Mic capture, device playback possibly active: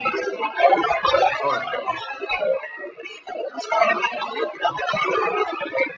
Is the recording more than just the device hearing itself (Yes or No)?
Yes